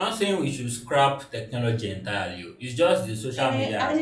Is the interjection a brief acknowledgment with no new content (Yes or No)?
No